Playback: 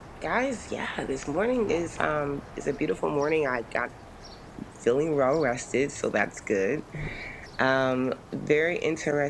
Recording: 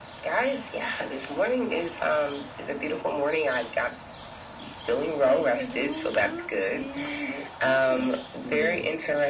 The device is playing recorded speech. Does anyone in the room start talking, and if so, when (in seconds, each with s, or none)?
5.1 s